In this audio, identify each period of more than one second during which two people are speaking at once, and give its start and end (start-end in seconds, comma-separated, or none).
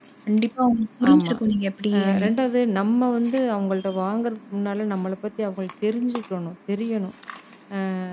none